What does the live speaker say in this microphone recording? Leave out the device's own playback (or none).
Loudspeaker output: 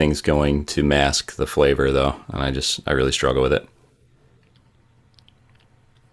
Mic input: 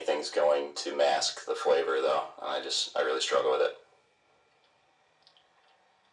none